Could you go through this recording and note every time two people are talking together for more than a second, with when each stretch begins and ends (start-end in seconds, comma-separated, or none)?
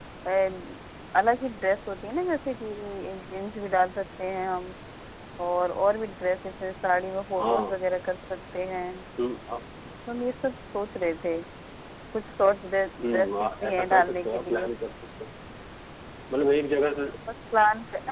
13.0-14.7